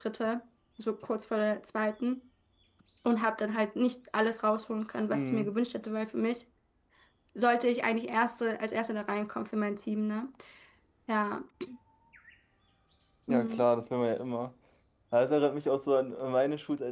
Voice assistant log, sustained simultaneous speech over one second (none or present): none